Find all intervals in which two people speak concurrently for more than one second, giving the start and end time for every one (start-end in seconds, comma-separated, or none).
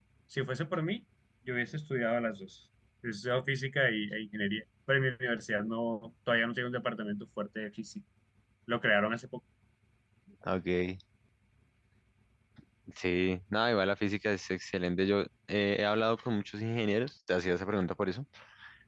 none